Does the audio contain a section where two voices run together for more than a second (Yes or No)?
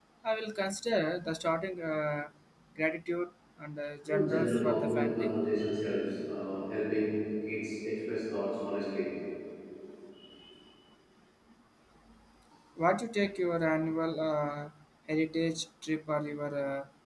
Yes